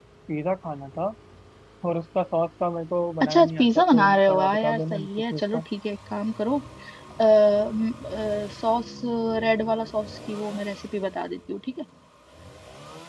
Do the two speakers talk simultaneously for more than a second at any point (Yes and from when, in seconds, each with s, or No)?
Yes, from 3.2 s